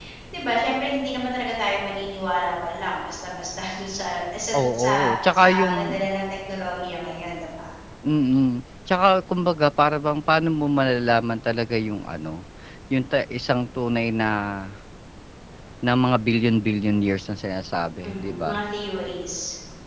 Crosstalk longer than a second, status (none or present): present